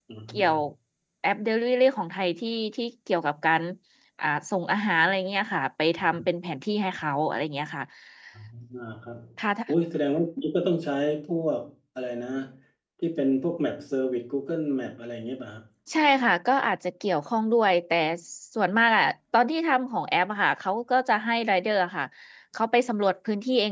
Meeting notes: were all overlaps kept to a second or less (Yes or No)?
Yes